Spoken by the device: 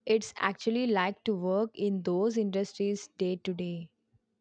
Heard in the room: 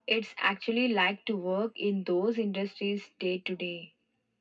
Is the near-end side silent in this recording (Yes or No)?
Yes